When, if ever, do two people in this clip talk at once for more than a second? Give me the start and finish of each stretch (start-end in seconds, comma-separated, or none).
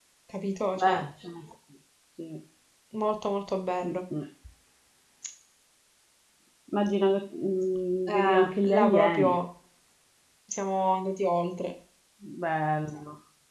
8.1-9.4